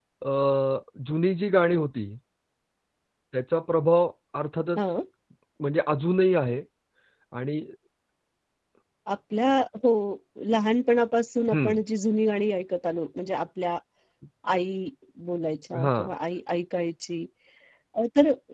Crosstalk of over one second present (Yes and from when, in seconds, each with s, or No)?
No